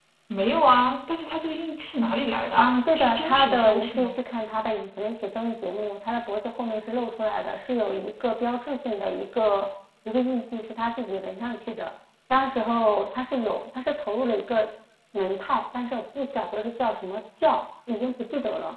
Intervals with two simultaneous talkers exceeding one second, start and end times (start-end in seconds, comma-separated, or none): 2.6-4.2